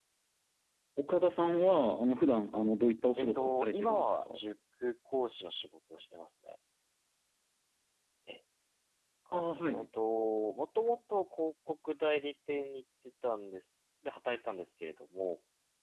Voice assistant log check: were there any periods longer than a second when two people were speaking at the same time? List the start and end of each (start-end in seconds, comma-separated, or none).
3.2-4.4